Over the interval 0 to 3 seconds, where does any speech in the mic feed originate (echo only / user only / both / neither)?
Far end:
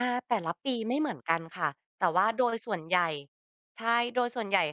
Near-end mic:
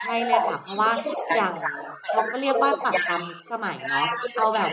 both